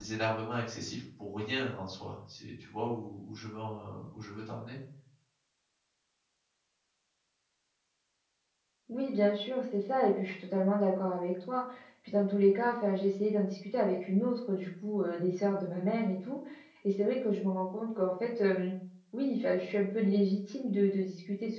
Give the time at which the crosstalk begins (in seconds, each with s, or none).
none